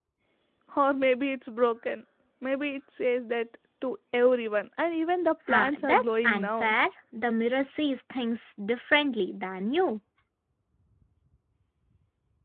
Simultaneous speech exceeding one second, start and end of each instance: 5.5-6.7

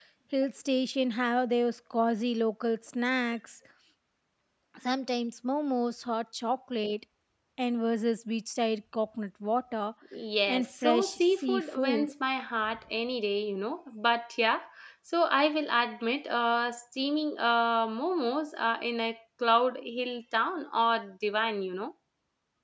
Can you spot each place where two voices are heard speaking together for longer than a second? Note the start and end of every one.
10.5-12.1

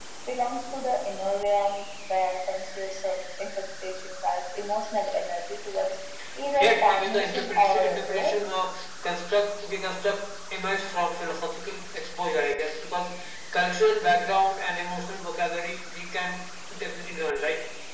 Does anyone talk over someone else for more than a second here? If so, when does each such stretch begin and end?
6.5-8.3

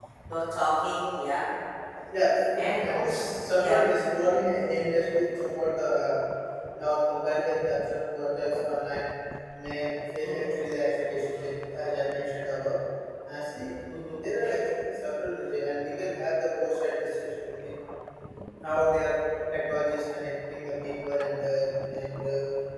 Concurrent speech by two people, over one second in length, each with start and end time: 2.6-3.8

